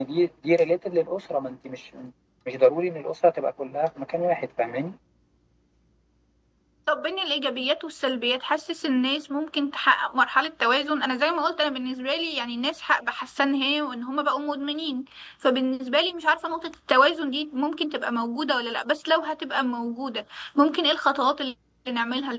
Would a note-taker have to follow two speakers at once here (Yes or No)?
No